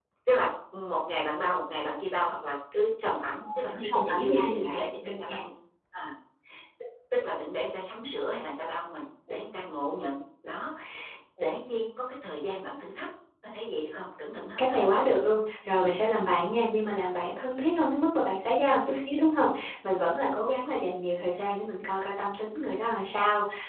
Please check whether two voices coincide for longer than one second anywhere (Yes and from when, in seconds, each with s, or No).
Yes, from 3.4 s